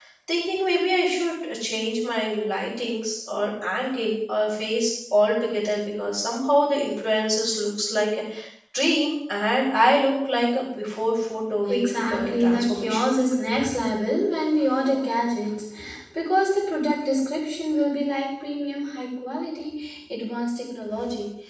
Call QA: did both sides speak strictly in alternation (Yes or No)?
No